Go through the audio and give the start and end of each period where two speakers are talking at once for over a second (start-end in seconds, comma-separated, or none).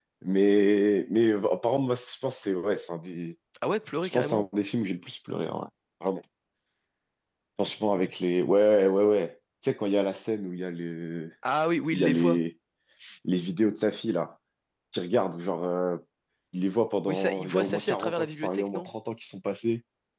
17.1-18.9